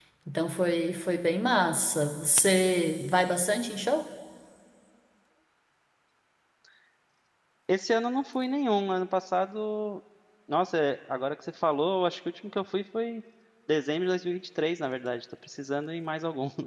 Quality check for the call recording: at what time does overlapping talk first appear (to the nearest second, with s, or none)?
none